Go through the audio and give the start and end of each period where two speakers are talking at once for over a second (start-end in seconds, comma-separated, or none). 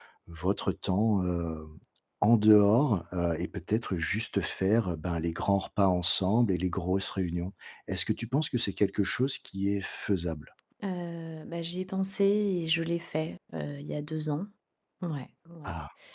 none